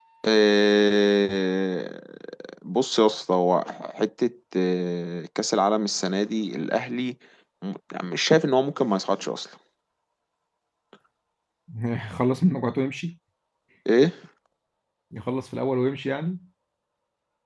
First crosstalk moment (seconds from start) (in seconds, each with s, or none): none